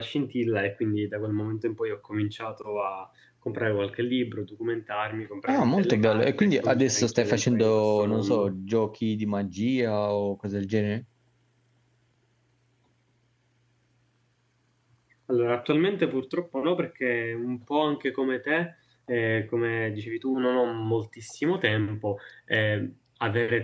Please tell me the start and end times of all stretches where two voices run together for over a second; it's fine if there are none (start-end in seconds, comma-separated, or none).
5.5-8.6